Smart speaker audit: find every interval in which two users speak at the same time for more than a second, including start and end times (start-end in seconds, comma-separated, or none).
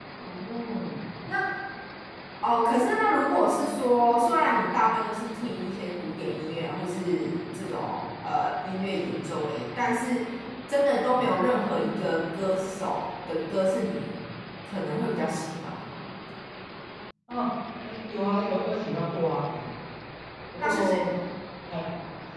none